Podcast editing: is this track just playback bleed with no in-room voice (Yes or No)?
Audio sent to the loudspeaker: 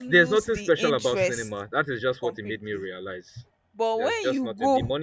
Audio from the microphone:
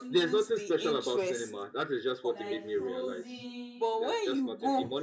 No